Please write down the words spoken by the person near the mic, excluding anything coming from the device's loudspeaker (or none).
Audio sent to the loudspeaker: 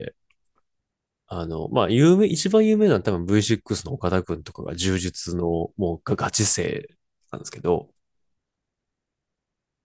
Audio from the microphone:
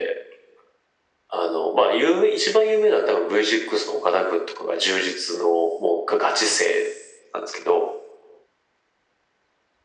none